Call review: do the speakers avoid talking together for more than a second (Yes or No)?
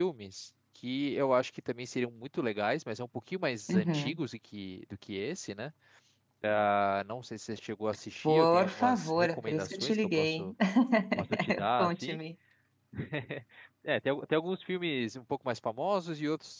No